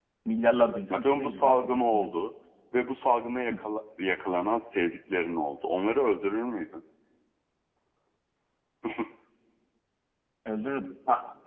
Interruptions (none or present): present